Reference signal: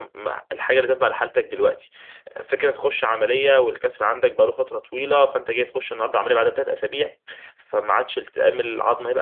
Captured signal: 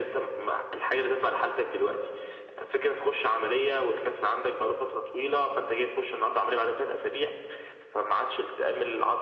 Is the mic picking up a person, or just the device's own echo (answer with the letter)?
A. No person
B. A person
A